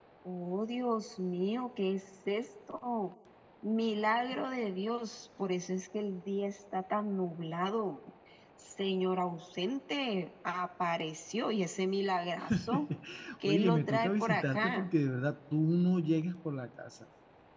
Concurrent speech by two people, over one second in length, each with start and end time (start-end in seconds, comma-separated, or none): 13.5-14.9